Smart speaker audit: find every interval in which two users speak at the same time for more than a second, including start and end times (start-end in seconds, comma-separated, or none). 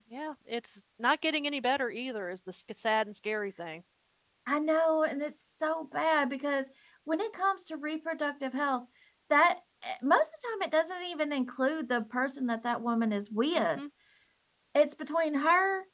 none